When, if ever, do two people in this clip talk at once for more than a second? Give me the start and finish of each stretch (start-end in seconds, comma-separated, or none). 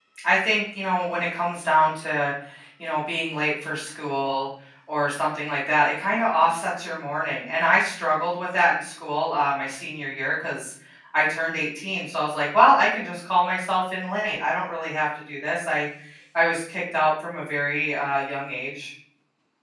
none